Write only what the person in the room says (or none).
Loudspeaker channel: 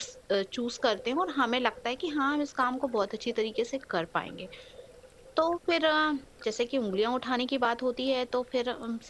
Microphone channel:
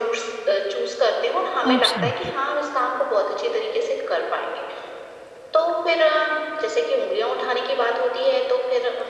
एब्सोल्युटली,